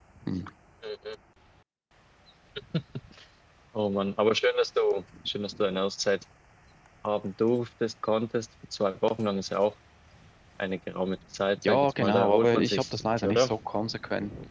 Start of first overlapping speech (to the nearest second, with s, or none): 12 s